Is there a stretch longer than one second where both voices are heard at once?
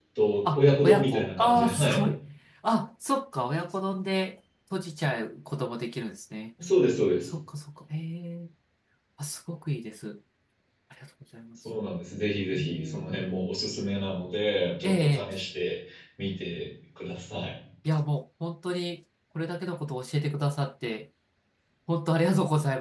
Yes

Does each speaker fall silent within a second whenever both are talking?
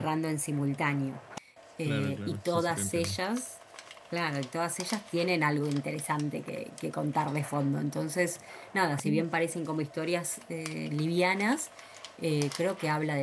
No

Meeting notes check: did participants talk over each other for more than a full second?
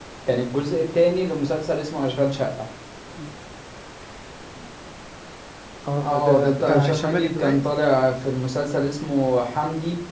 Yes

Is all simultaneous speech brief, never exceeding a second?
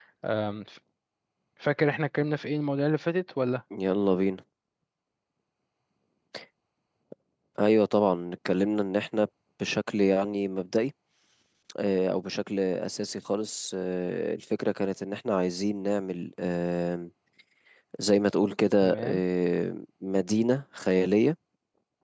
Yes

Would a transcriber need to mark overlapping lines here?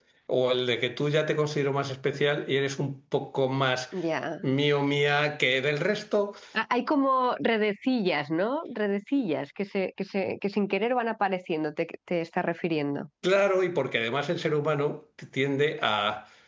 No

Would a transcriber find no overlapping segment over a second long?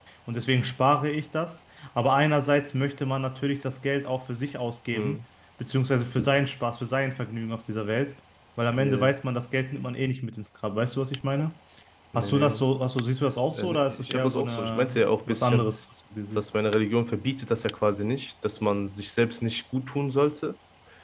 No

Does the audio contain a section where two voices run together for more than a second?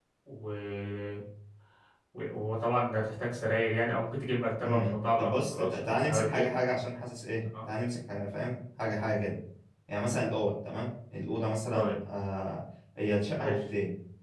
Yes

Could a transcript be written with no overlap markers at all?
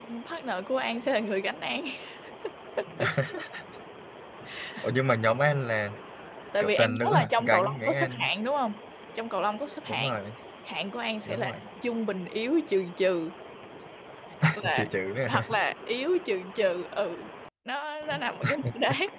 No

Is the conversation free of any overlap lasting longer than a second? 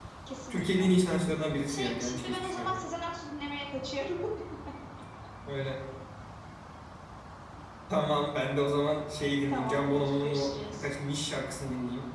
No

